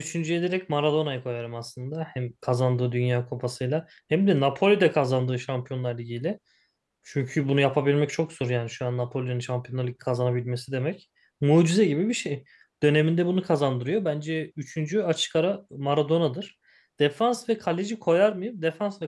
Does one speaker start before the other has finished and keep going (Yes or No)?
No